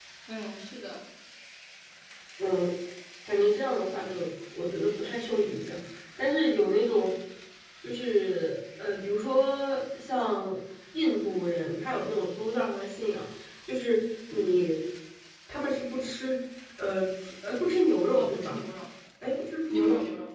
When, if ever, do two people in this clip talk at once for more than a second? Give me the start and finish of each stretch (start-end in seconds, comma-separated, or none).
none